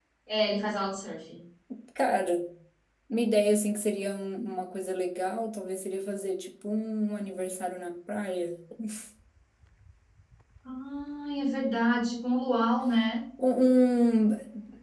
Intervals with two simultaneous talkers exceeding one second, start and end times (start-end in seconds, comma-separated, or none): none